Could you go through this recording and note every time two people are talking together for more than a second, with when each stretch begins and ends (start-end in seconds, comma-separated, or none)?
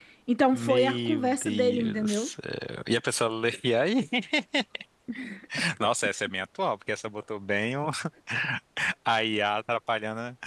0.5-2.3